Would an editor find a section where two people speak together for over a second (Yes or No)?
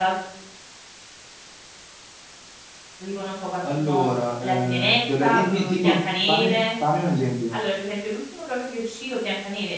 Yes